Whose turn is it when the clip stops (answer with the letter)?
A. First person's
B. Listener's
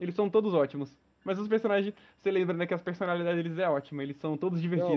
B